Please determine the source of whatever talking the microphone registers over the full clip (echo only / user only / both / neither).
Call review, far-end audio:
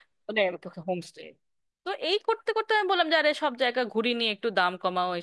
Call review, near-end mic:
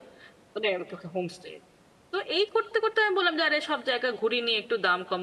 echo only